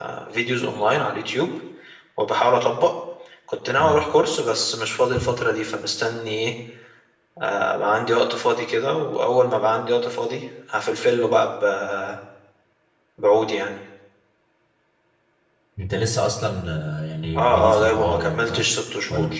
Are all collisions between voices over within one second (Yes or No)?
No